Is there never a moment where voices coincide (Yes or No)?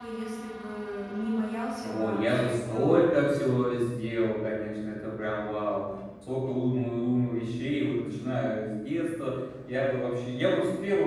No